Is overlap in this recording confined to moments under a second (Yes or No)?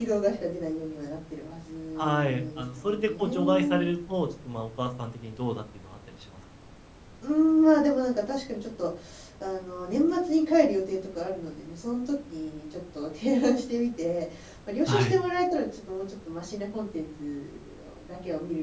No